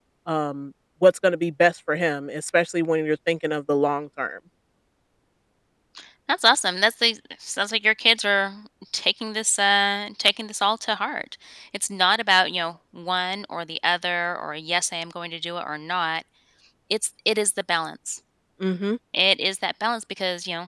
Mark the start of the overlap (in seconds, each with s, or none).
none